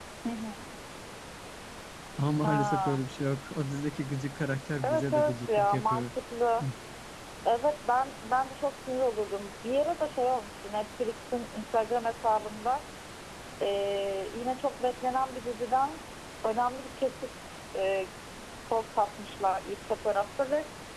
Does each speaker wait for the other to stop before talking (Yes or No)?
No